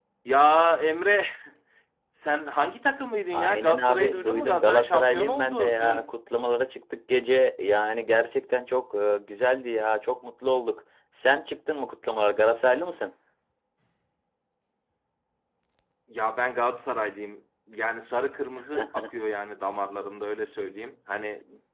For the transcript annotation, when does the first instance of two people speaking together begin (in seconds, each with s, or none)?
3.3 s